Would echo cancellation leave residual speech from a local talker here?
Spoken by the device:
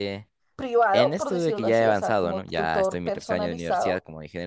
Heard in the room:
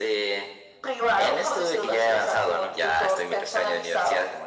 No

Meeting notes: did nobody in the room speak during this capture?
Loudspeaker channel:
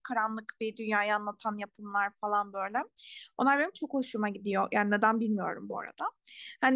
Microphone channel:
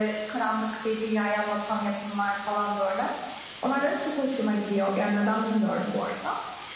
Yes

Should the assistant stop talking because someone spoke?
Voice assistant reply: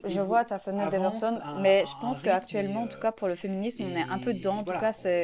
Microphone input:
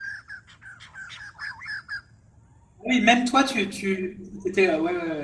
Yes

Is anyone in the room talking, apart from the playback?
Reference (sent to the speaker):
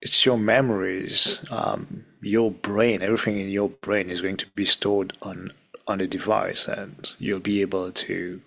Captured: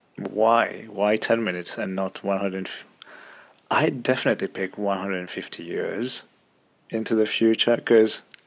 Yes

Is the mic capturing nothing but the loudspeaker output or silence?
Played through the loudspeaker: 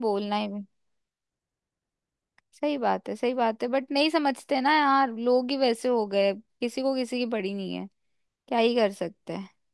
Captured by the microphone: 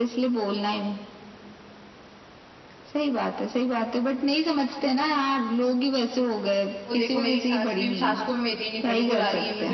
No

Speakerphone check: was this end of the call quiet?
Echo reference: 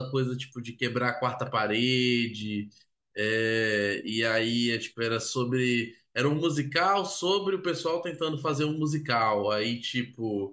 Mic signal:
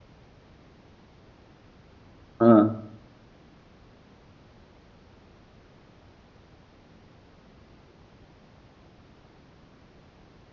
No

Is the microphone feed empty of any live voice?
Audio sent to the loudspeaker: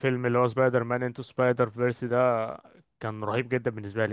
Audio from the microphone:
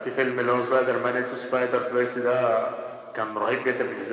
Yes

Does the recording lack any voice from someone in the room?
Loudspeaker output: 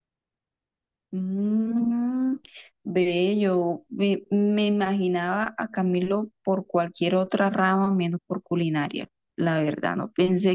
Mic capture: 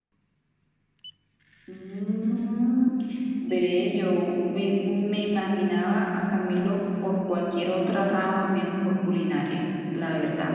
Yes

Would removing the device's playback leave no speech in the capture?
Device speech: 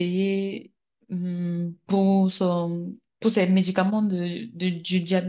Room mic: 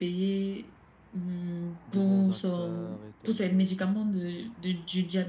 No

